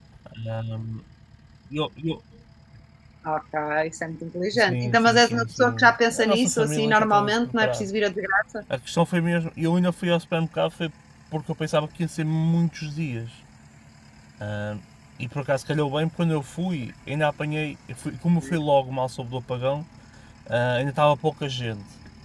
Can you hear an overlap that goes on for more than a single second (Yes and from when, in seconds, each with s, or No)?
Yes, from 4.5 s